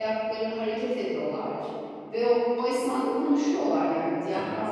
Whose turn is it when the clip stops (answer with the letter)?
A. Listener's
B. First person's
B